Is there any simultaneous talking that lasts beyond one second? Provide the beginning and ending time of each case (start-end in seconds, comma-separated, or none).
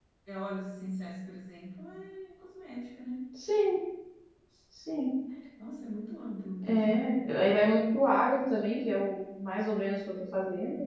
none